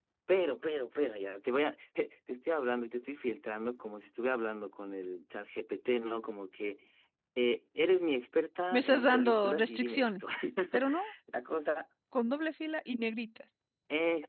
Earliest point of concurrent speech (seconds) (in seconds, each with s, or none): 8.7 s